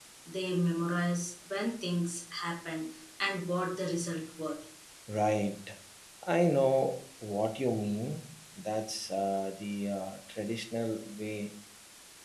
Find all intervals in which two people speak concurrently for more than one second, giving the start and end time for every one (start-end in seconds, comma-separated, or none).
none